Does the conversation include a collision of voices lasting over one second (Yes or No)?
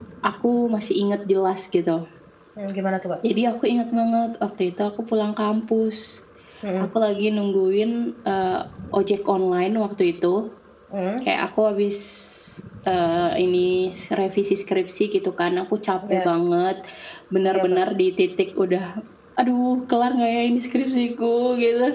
No